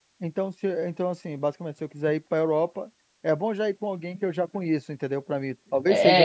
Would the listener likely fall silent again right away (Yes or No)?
No